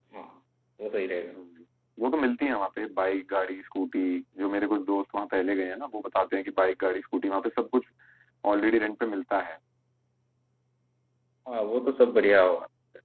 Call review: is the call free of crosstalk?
Yes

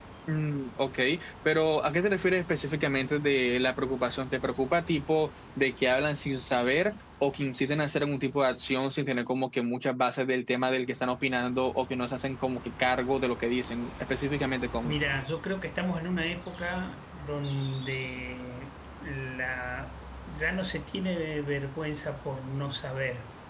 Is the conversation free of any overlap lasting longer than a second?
Yes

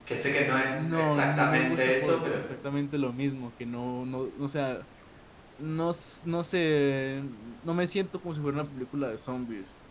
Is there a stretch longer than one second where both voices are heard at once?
Yes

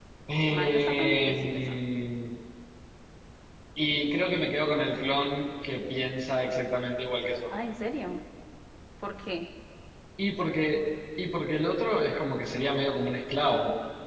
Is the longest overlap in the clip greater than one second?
Yes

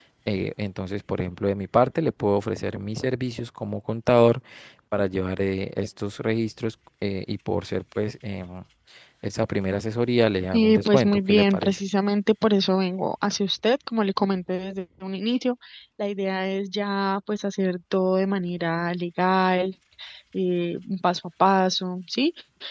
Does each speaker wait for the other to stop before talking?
No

